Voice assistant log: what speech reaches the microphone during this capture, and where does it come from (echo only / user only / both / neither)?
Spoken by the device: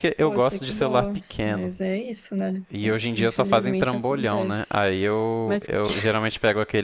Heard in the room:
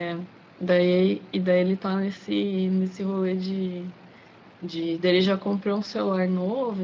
user only